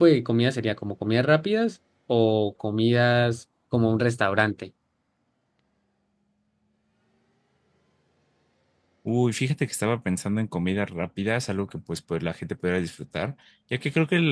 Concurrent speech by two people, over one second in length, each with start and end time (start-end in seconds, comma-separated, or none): none